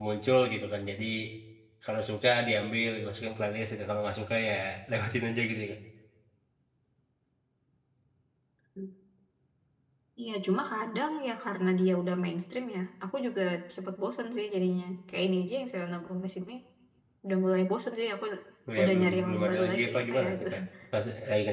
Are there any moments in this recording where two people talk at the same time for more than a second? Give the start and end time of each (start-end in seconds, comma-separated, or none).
18.8-20.5